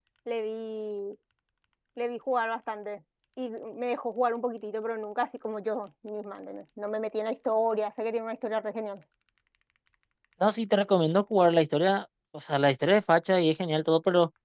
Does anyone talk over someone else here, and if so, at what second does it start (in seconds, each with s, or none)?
none